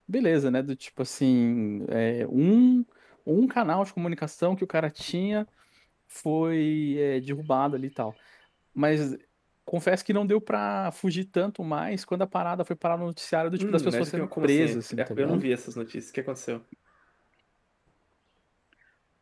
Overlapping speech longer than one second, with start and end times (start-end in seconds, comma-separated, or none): 13.6-15.4